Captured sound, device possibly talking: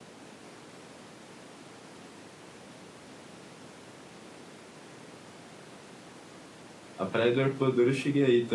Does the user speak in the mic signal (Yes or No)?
Yes